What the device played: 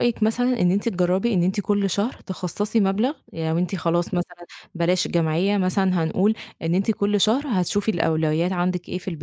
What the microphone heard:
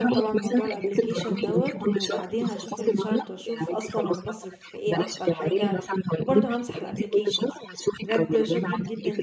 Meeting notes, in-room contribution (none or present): present